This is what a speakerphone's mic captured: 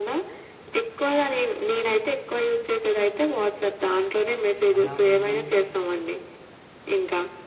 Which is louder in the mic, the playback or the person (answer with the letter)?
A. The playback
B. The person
A